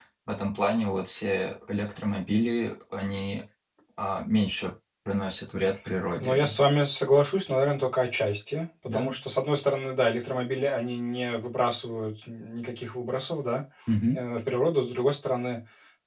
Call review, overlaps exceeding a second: none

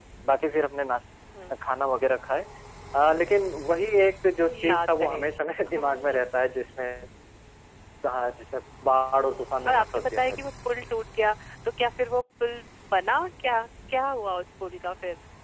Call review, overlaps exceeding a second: present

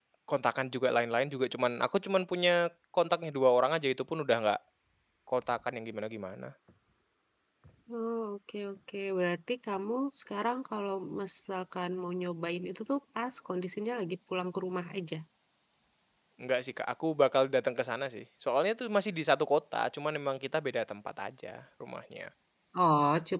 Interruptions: none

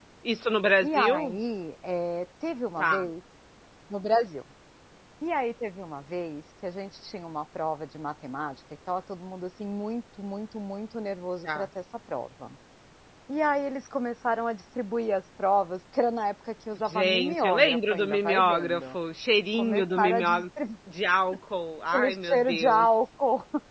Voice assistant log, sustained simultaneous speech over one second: present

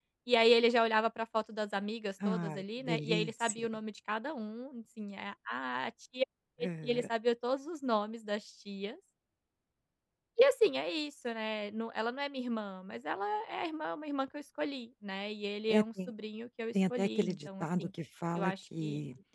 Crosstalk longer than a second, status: present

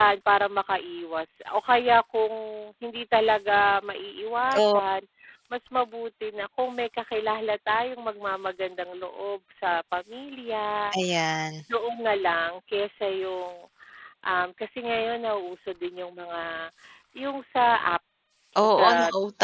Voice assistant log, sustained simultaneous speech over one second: none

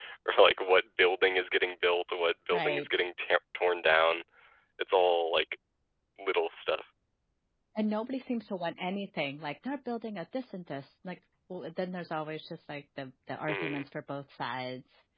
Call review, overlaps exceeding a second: none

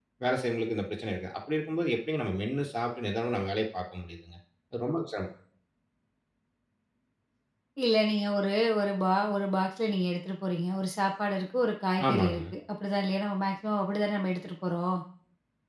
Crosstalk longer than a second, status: none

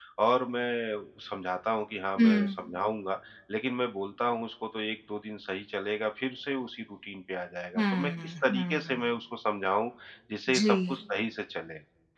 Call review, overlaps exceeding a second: present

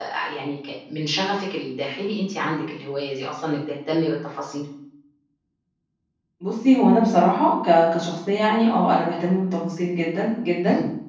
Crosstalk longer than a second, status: none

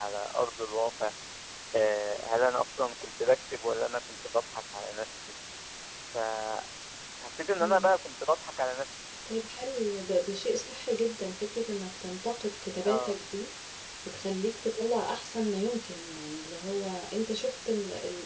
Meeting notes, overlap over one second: none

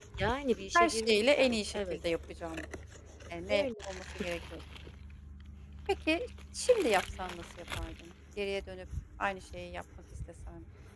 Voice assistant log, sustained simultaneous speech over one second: present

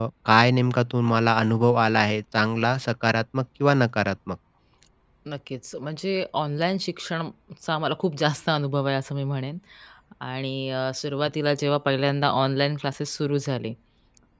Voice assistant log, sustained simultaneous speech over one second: none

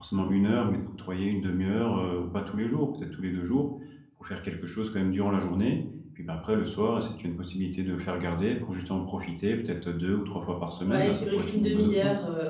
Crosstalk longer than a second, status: present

